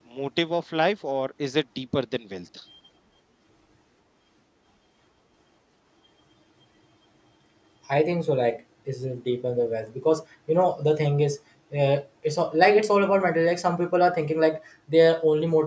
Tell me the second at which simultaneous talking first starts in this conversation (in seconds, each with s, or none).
none